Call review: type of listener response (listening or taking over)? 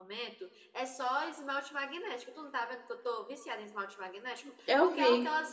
listening